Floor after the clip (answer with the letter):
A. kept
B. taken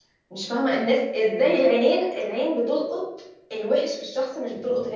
A